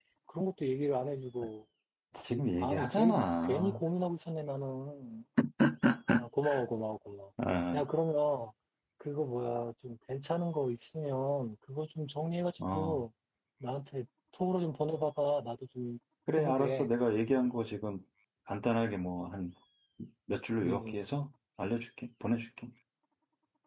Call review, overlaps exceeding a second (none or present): present